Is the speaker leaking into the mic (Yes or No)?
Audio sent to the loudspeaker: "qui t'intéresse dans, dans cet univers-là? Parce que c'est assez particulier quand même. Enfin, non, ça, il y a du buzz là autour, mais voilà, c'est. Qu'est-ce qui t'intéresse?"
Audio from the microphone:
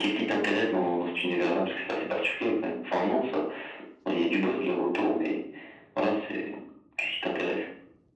Yes